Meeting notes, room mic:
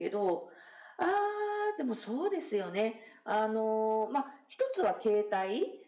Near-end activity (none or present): none